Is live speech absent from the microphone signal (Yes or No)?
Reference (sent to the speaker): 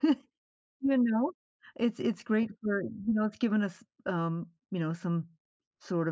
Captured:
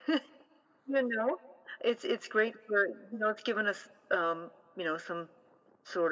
Yes